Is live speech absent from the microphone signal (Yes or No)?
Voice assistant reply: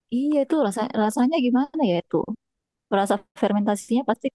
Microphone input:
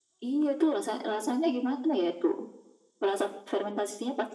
Yes